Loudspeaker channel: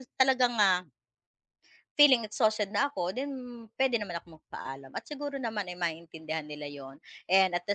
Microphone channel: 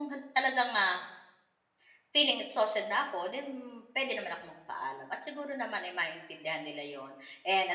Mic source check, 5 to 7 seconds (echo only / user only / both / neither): echo only